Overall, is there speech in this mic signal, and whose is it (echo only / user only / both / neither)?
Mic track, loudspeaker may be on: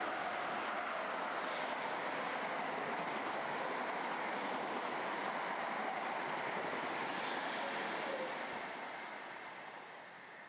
neither